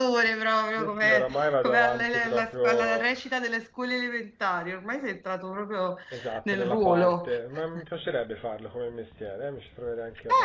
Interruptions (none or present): present